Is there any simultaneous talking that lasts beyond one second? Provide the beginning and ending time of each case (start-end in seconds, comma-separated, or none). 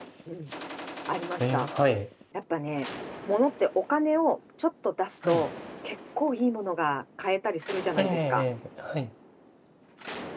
none